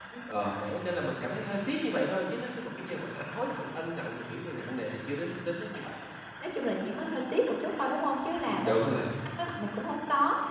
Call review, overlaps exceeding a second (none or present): none